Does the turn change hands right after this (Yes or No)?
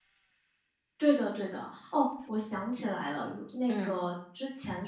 No